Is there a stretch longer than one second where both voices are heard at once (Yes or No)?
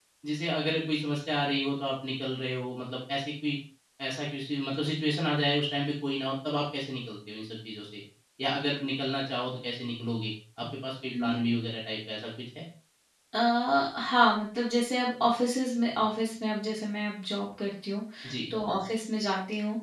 No